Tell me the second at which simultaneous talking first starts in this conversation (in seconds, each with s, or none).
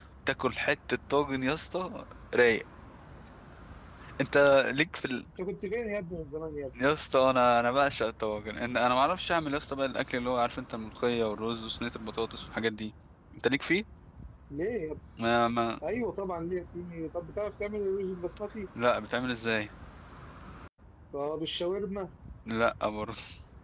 none